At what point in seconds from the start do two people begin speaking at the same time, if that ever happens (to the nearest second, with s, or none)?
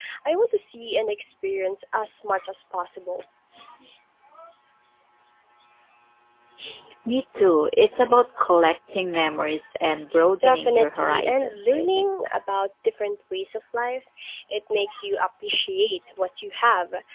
10 s